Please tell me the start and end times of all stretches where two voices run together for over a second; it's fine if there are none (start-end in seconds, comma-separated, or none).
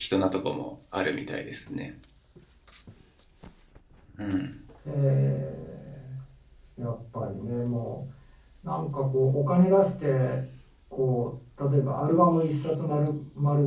none